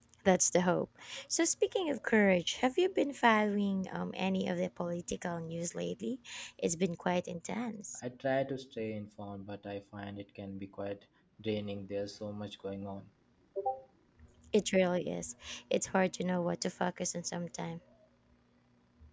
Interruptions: none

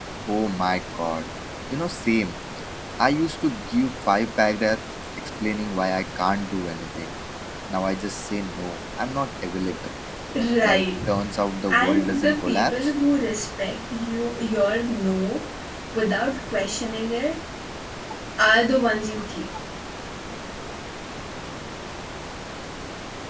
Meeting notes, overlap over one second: present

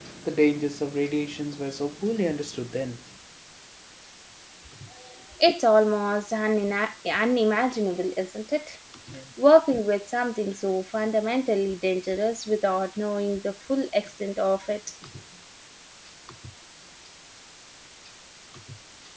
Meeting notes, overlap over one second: none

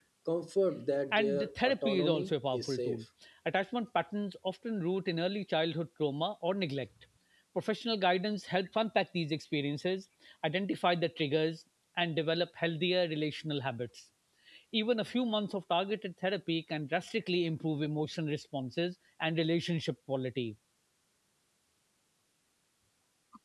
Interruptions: present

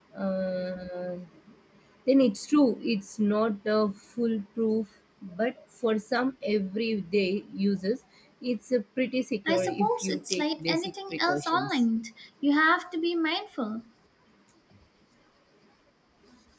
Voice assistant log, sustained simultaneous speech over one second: present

